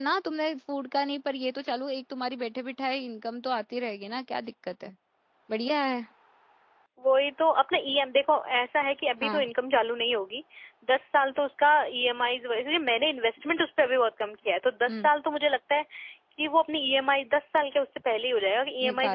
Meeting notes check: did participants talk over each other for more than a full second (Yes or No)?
No